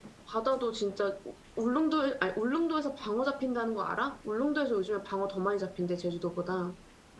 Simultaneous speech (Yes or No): No